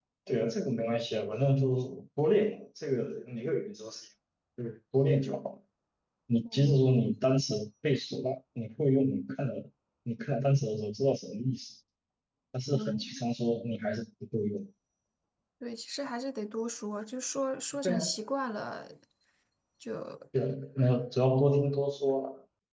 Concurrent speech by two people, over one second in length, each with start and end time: none

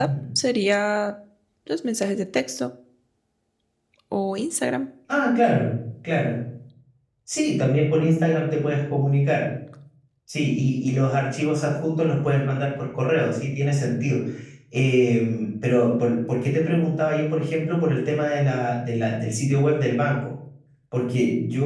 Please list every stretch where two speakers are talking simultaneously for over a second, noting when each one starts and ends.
none

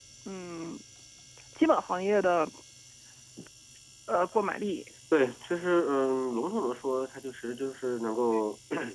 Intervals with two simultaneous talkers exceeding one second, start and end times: none

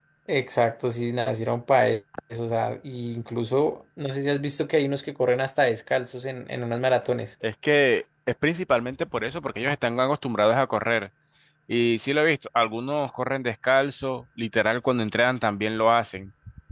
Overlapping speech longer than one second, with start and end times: none

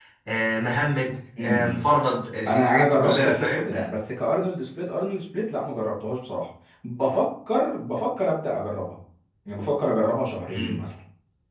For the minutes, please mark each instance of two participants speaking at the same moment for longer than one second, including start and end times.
2.5-3.7

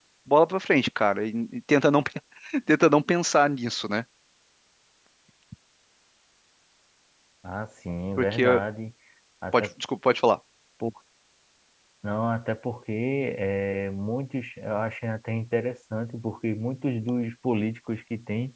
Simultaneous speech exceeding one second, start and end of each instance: none

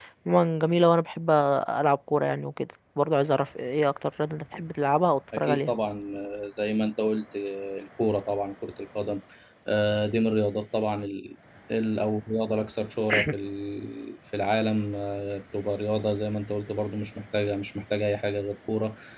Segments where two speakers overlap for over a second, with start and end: none

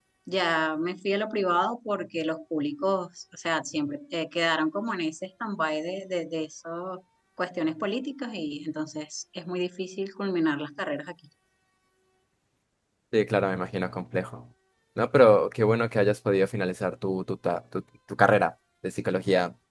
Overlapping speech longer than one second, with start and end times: none

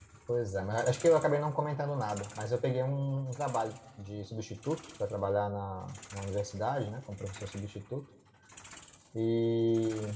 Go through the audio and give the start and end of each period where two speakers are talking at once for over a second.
none

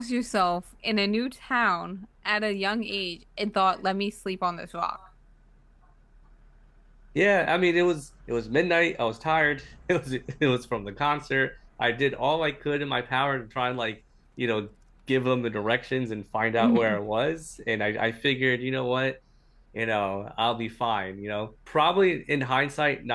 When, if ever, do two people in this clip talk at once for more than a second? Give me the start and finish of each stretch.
none

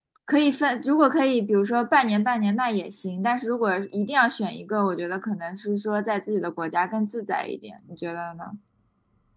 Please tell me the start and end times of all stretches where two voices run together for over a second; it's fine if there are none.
none

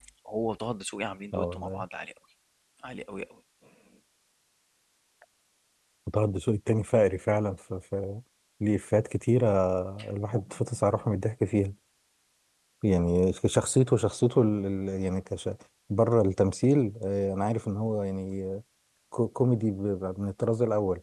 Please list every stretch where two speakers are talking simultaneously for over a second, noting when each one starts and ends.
none

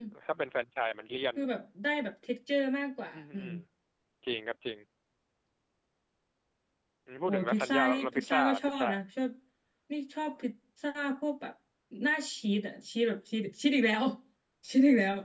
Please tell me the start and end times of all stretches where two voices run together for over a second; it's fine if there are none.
7.3-8.9

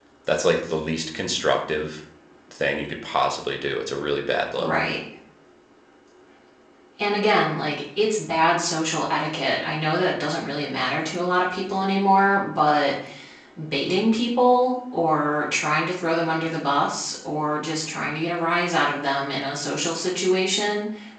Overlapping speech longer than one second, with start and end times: none

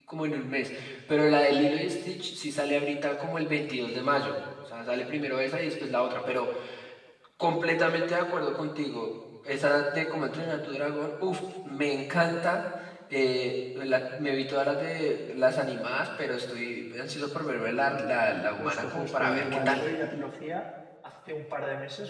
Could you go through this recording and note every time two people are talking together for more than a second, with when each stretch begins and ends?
18.6-19.9

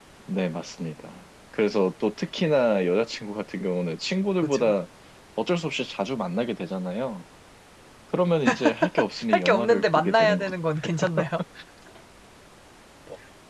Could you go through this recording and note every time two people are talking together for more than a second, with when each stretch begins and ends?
9.3-10.5

